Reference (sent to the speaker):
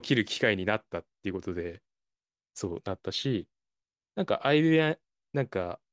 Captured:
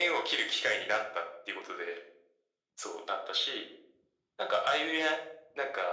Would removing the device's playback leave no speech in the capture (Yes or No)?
Yes